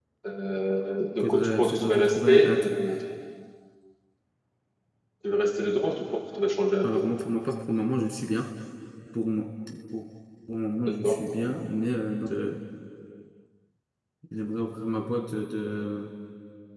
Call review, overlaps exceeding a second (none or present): present